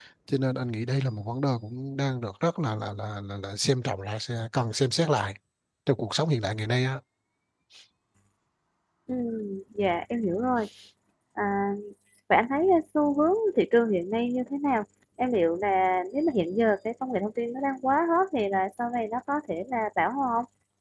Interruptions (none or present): none